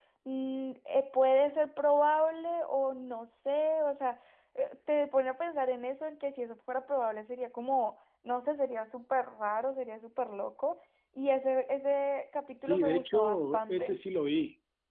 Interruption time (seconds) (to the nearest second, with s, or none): 13 s